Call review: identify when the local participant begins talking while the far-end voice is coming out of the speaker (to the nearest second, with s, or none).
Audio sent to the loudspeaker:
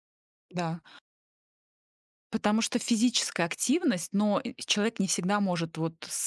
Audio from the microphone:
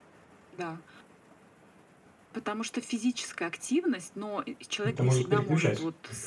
5 s